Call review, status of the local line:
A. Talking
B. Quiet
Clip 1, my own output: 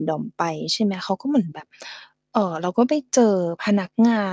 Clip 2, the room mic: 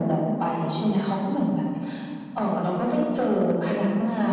B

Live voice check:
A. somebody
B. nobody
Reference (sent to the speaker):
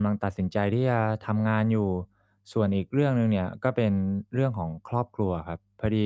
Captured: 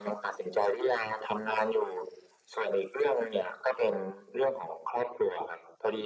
B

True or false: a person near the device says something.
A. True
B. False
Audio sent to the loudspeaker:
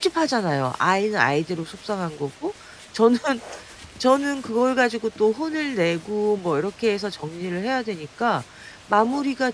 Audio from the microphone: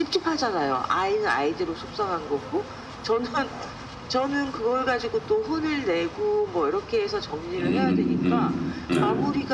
A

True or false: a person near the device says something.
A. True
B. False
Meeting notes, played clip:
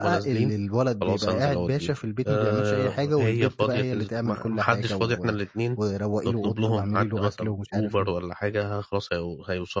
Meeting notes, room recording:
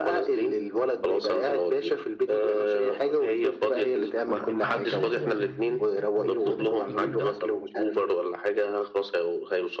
A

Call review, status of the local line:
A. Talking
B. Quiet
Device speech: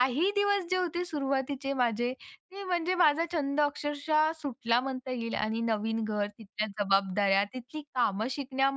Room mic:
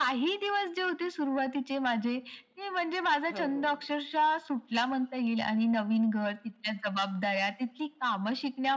A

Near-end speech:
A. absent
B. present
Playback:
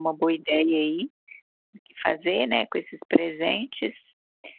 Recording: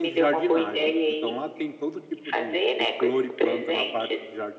B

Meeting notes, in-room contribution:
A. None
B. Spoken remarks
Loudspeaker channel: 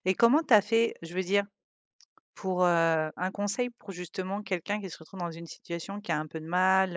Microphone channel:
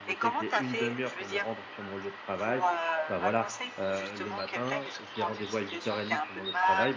B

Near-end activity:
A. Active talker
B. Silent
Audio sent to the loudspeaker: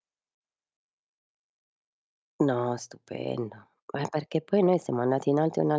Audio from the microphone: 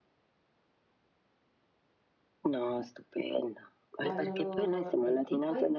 A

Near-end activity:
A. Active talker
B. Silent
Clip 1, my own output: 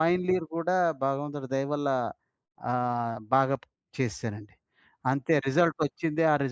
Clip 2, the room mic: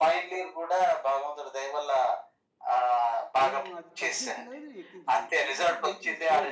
A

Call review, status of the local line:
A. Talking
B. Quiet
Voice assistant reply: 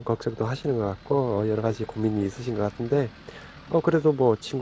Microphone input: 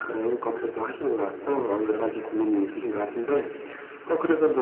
B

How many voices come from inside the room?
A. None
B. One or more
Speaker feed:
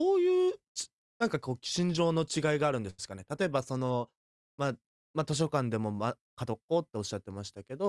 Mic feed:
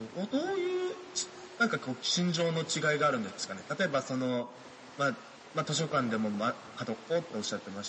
A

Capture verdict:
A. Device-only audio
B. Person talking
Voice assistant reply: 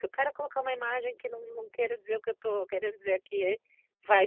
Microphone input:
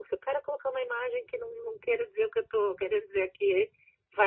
A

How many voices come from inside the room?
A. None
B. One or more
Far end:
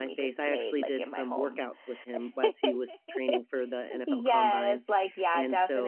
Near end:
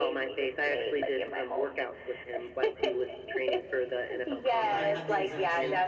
B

